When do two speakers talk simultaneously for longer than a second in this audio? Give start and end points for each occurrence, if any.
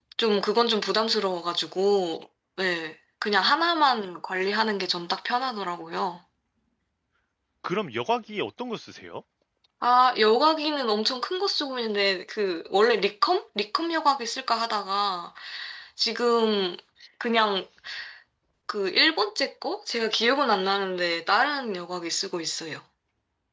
none

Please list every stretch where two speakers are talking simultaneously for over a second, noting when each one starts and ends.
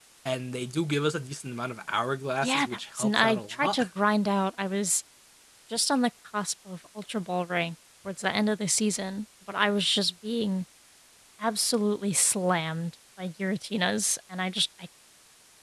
2.4-3.8

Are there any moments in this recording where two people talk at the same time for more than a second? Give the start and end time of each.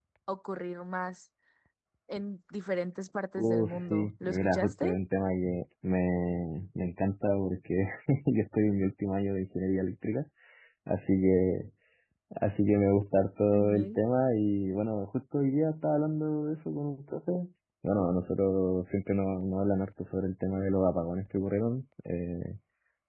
3.4-4.9

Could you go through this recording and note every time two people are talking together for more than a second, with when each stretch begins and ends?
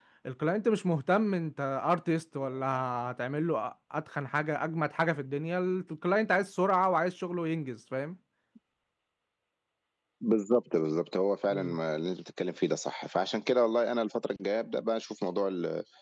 none

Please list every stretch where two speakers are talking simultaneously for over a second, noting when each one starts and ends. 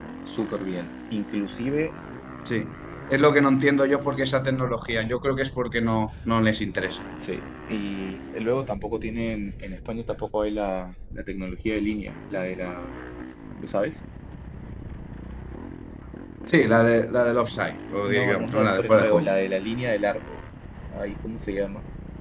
18.1-19.3

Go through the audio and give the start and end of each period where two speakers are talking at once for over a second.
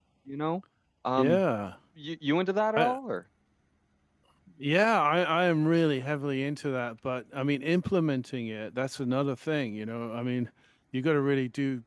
none

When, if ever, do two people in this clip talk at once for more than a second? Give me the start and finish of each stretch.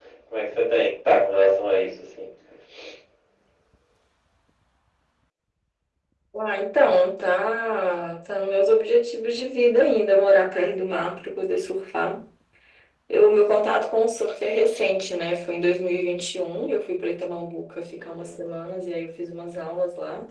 none

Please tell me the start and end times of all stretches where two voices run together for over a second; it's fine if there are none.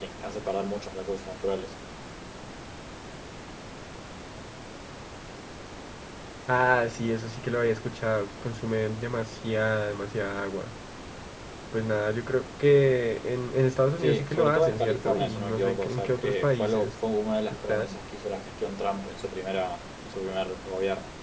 14.0-16.9

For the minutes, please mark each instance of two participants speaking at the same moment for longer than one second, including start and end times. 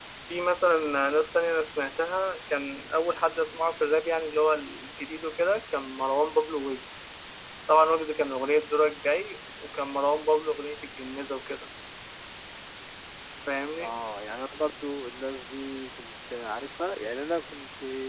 none

